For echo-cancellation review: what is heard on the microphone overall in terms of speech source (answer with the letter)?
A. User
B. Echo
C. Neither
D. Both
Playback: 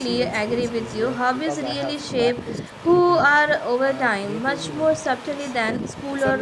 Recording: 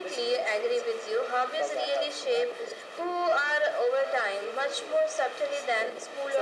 B